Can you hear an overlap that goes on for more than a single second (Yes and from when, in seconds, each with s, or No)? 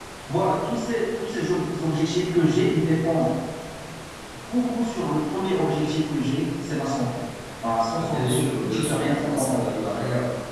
Yes, from 8.0 s